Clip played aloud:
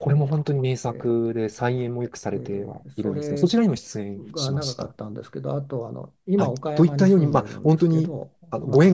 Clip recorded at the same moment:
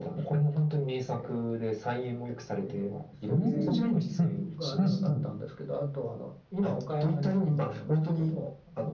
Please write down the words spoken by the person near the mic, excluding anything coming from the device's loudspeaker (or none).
うんうんうんうんうん